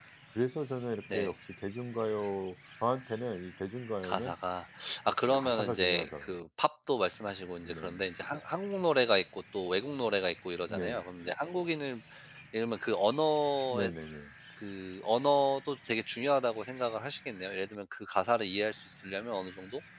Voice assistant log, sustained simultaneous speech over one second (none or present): present